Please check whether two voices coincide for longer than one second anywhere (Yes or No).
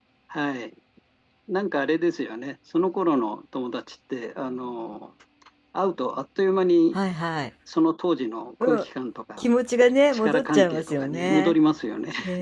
Yes